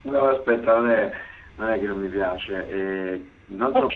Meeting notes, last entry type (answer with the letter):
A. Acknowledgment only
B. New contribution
A